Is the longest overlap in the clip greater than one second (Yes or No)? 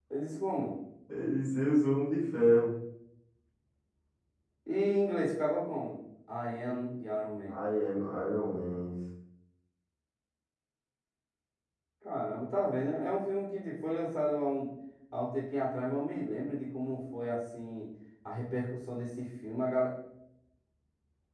No